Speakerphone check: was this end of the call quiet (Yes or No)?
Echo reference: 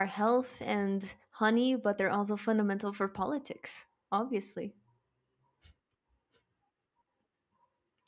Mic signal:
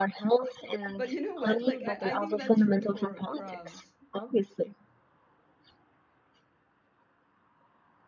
No